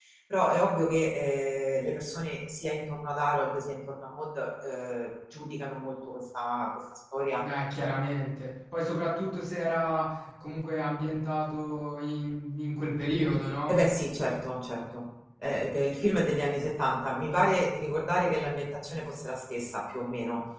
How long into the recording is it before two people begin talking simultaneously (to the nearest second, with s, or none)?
none